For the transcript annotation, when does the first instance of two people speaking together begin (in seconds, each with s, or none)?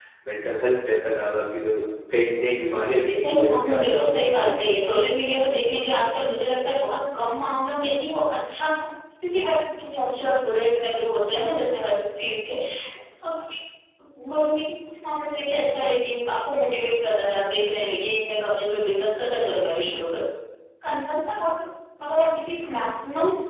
2.7 s